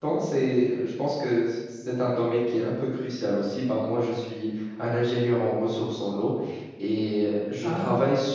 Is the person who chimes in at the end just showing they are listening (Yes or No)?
Yes